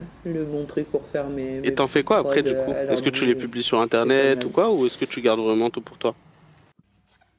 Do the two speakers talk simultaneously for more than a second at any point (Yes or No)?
Yes